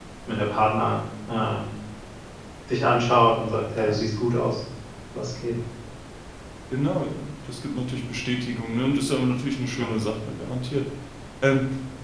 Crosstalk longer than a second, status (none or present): none